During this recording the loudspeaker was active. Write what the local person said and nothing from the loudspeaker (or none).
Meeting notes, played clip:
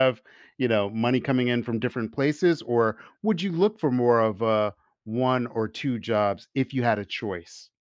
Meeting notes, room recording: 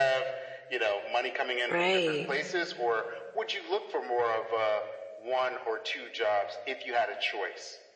Right.